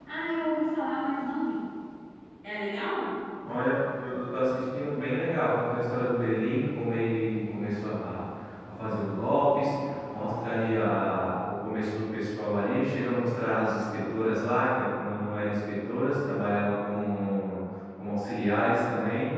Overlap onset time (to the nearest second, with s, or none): none